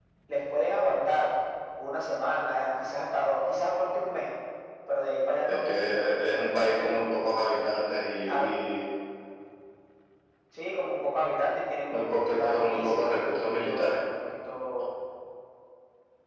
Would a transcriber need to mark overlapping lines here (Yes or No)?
Yes